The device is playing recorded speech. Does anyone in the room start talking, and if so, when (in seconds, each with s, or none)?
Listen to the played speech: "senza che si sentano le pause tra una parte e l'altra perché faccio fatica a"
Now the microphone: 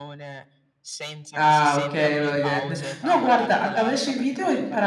1.3 s